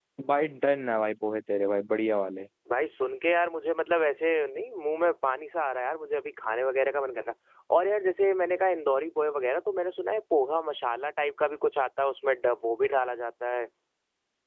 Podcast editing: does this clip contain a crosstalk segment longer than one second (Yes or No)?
No